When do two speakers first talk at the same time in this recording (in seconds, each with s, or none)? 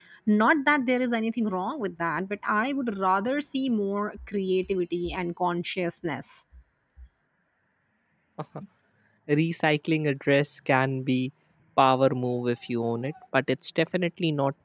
none